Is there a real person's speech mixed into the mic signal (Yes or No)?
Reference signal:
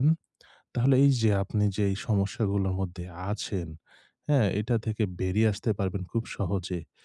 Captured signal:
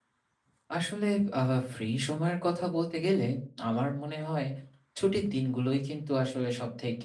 Yes